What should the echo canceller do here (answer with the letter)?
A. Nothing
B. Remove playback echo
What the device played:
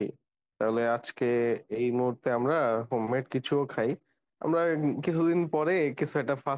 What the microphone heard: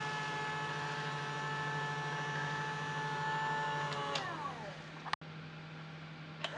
A